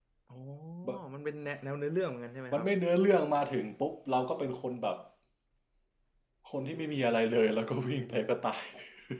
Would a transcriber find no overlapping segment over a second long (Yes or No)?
Yes